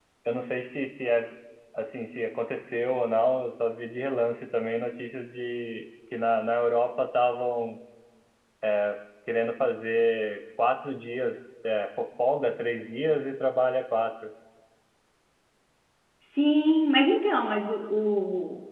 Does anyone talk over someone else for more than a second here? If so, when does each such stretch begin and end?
none

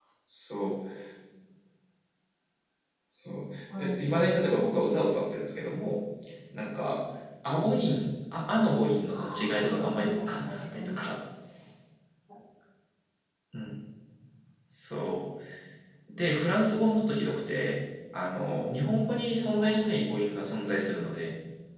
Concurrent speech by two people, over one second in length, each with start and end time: 9.1-11.0

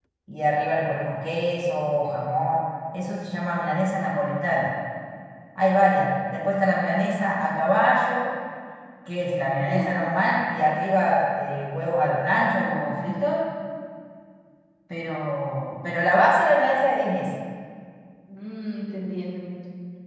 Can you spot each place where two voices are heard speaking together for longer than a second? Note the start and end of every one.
none

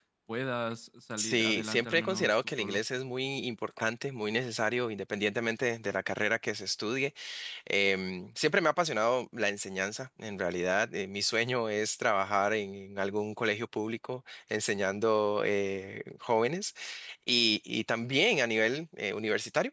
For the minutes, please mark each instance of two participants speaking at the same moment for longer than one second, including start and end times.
1.2-2.8

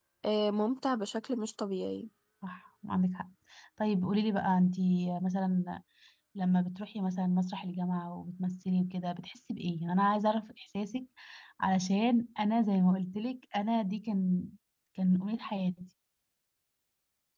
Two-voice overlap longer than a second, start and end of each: none

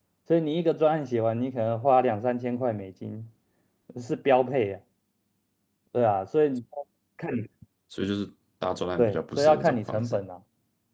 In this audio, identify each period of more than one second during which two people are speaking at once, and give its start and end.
9.0-10.2

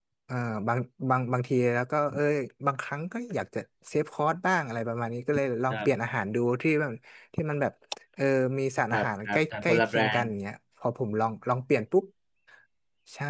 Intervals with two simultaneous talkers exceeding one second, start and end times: 8.9-10.3

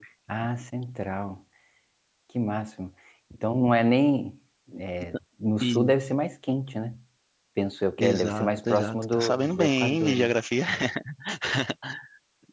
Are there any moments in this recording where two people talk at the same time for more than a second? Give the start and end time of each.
8.0-10.3

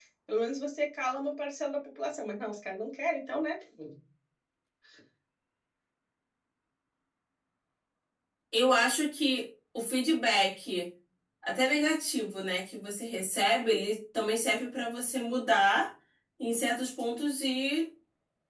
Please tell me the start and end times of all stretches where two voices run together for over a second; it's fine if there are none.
none

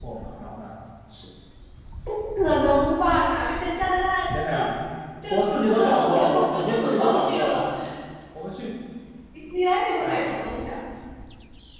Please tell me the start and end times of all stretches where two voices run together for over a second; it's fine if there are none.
5.3-7.4

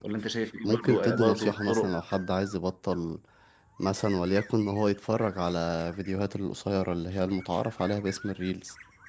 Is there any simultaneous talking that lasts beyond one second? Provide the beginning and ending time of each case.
0.6-1.9

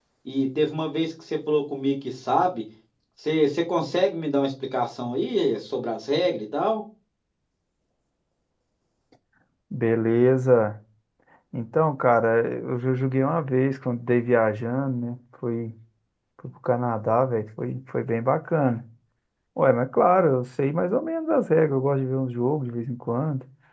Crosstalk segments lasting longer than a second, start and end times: none

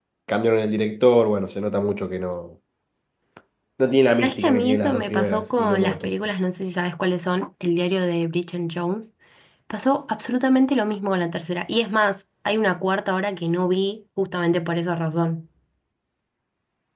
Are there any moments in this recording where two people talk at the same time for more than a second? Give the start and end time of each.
4.2-6.1

